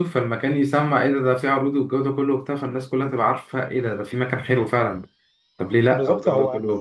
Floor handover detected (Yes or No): Yes